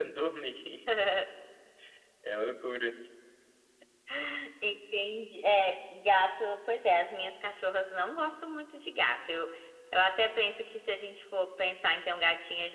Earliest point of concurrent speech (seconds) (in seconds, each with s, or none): none